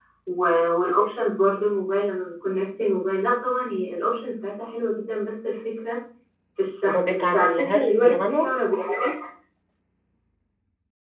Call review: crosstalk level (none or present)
present